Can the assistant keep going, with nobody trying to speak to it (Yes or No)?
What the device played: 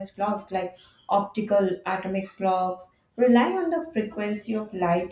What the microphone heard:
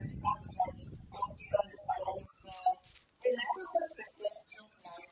Yes